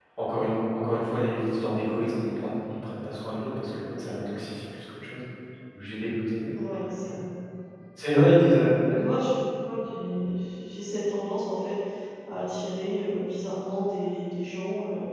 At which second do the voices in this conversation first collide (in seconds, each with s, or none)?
none